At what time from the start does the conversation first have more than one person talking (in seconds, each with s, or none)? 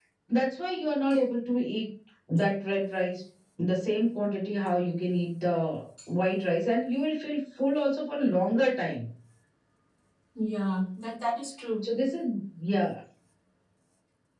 none